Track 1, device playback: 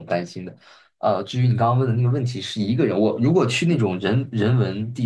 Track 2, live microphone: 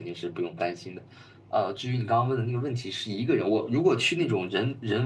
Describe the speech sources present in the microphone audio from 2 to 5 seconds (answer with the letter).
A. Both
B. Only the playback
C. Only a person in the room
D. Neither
B